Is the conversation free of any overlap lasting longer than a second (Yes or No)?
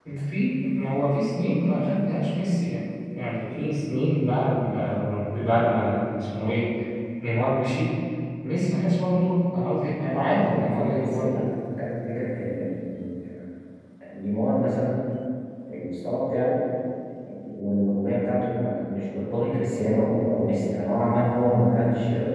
No